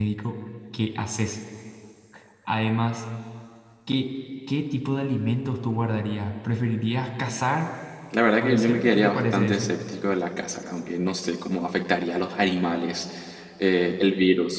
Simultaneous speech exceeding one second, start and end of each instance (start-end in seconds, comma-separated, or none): 8.4-9.7